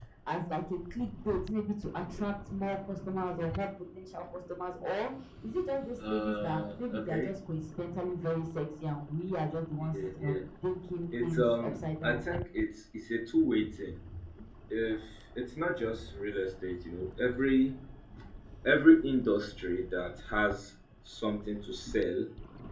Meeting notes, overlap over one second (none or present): present